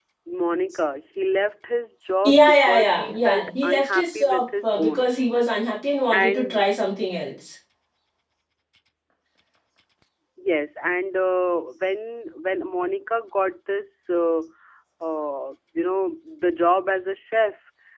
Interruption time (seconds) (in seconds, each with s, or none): 2.2 s